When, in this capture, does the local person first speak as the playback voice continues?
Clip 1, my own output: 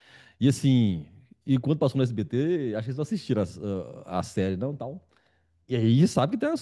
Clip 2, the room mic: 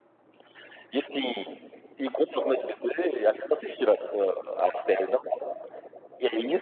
none

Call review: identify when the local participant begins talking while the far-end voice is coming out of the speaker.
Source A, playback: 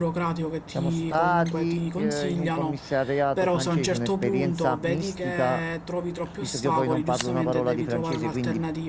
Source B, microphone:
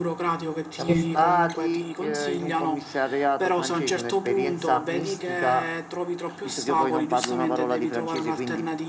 0.7 s

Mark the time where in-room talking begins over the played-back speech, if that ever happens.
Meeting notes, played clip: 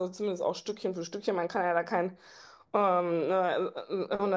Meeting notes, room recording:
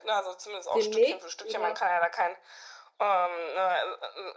0.7 s

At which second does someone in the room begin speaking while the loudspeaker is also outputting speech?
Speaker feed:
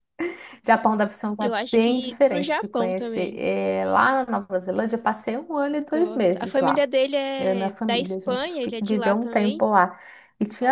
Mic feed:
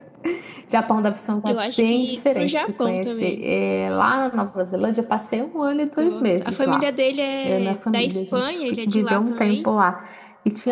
none

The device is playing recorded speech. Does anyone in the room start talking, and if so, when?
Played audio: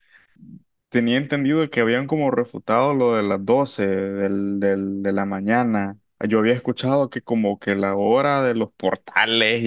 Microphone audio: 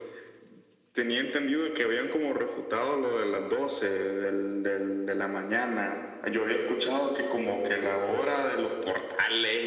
none

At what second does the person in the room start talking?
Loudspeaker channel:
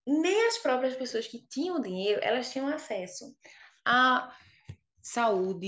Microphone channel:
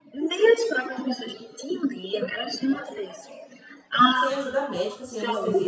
4.1 s

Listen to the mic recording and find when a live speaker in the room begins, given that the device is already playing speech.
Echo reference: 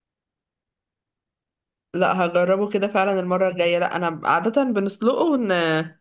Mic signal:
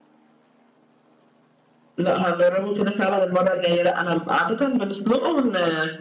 none

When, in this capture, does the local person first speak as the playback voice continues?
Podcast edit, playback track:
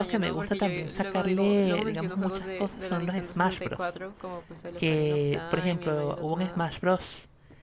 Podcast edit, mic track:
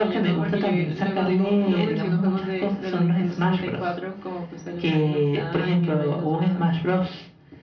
none

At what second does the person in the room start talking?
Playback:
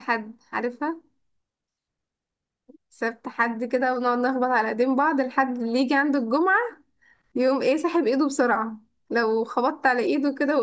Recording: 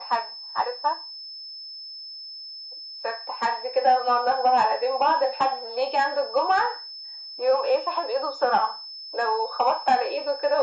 none

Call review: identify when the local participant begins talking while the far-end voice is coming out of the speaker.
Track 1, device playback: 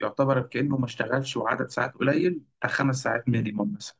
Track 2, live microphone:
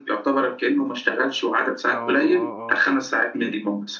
1.9 s

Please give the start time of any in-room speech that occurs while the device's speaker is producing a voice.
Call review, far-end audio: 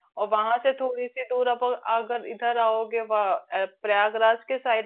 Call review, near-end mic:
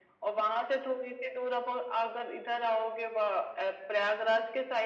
none

